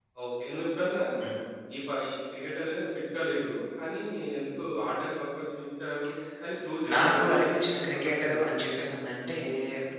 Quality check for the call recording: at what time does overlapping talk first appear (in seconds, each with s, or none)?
6.9 s